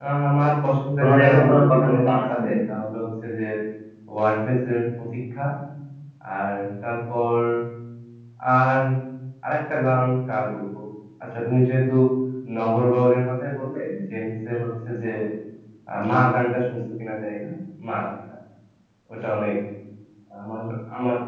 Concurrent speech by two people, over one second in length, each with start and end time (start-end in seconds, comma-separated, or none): 1.0-2.6